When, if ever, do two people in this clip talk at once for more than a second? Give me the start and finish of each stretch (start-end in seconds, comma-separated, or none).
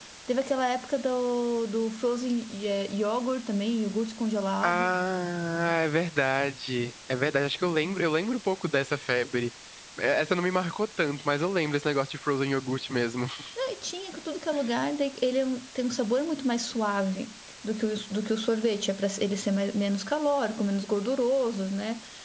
none